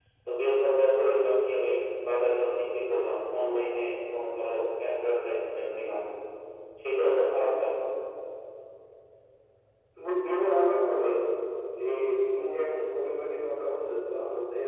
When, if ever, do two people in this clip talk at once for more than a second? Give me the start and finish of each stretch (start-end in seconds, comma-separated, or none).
none